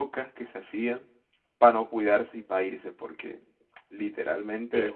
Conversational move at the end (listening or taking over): listening